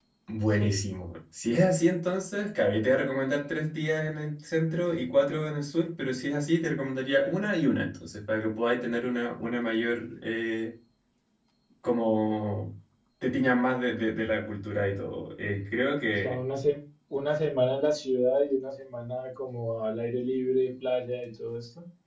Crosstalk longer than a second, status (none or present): none